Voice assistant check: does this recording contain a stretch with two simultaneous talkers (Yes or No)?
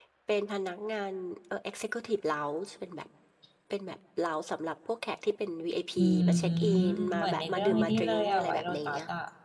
Yes